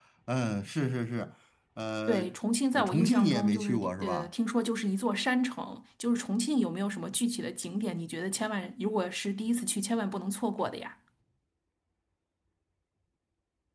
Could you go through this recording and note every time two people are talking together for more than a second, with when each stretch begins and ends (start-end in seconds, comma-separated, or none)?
2.7-4.3